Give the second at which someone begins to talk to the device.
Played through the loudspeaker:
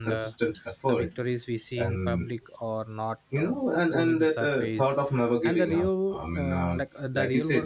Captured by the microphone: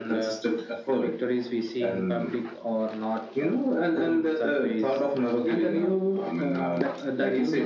none

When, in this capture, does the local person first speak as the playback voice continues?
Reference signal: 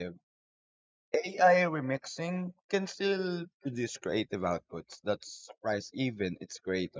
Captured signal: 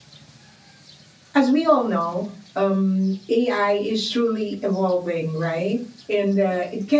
1.3 s

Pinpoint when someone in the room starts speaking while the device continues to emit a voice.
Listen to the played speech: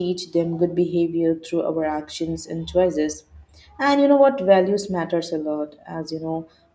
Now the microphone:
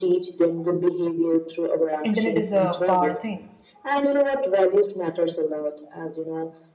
2.0 s

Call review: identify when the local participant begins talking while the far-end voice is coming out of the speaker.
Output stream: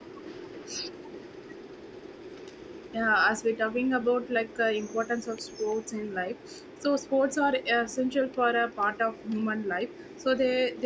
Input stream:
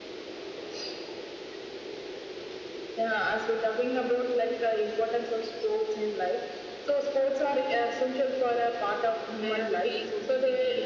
9.4 s

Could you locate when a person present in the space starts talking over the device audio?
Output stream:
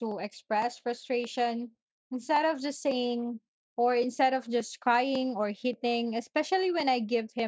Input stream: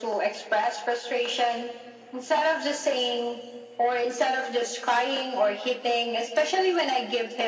none

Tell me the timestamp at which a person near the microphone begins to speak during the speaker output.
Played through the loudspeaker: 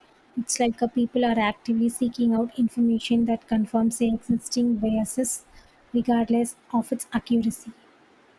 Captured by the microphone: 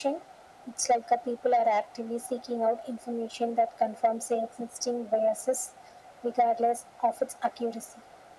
none

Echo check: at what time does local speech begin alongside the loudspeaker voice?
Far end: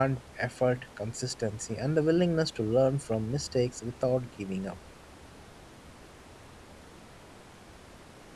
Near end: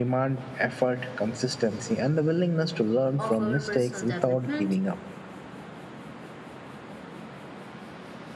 3.2 s

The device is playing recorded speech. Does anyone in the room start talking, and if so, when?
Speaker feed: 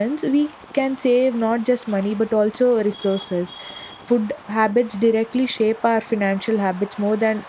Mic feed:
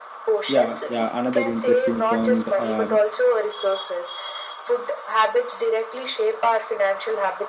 0.5 s

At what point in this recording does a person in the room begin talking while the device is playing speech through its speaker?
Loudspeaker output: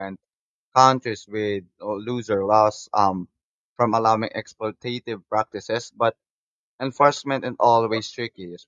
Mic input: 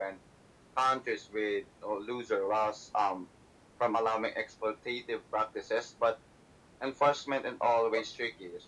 none

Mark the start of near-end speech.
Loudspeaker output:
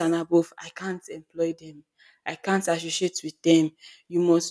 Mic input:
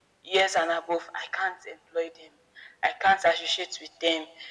none

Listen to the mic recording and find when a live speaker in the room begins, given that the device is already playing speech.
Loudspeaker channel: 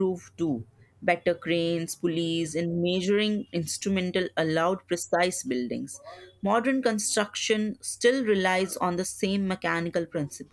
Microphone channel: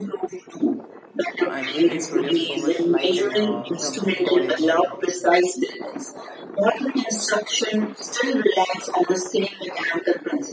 1.4 s

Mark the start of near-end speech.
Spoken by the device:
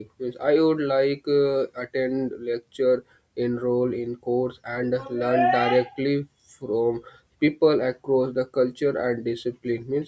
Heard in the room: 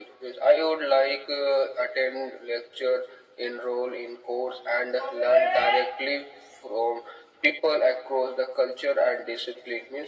none

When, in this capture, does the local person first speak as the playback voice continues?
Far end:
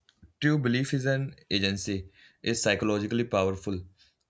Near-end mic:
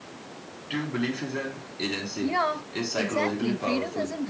2.2 s

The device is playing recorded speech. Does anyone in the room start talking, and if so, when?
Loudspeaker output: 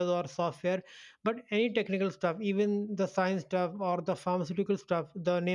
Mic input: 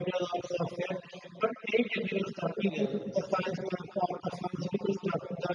2.7 s

